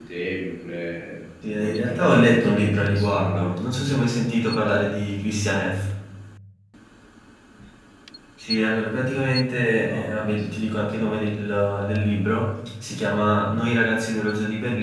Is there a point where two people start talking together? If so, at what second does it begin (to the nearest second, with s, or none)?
2 s